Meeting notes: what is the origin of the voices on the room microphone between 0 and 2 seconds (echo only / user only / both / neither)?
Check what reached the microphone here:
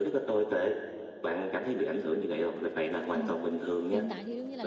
echo only